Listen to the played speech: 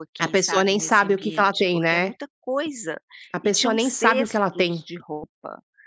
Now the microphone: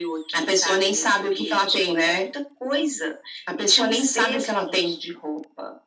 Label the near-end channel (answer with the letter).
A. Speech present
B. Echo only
B